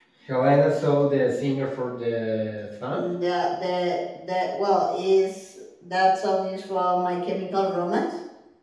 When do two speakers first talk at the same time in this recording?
none

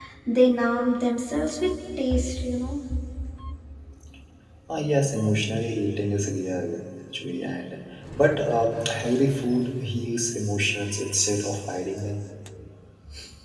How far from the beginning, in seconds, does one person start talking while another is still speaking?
none

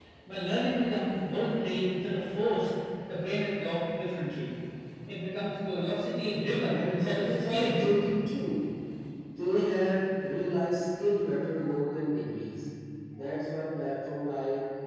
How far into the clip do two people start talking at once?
7 s

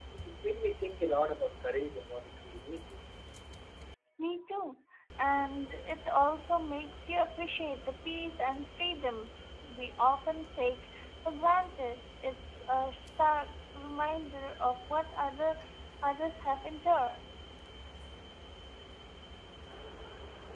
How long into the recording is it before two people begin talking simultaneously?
none

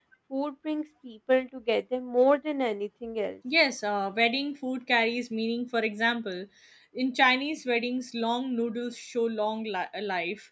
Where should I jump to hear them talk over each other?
none

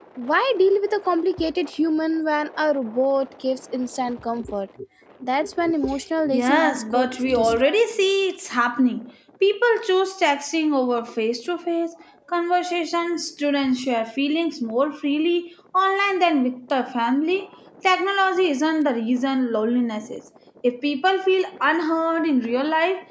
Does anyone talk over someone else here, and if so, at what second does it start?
6 s

